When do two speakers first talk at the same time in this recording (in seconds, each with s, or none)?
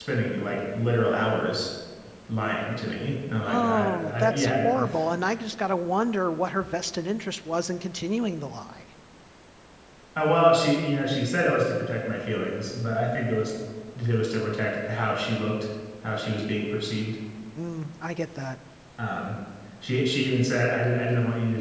3.4 s